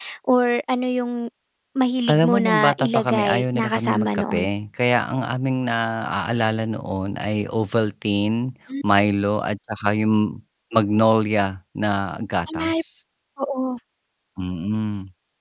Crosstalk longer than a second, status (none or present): present